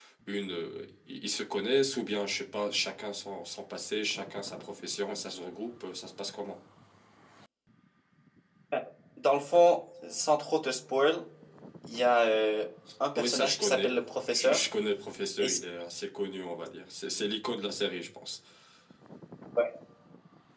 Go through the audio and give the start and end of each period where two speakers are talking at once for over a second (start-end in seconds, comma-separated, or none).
13.2-14.6